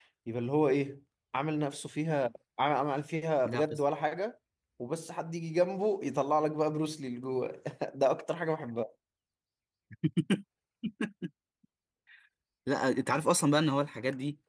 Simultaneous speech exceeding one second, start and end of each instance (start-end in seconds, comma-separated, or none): none